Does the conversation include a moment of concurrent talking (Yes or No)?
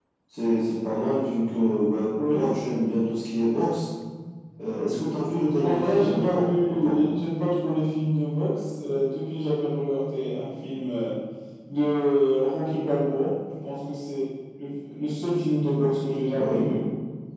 Yes